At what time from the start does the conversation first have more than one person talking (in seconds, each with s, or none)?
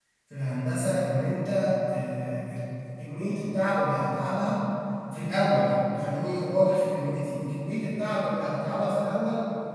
none